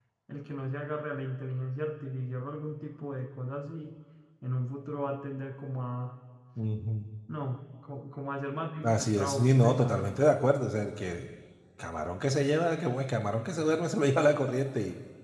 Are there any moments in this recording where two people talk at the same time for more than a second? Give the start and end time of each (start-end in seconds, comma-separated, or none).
8.8-10.1